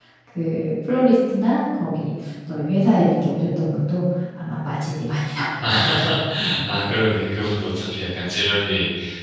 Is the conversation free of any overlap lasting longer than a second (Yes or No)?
Yes